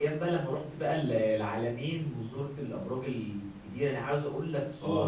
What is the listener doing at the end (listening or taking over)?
taking over